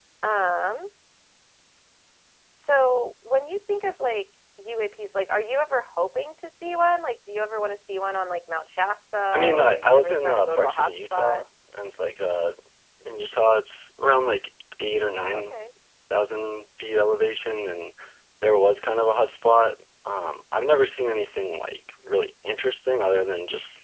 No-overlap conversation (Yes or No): No